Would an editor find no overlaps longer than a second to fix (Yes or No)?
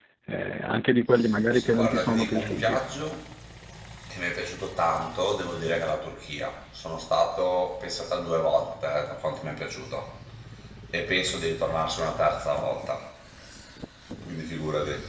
No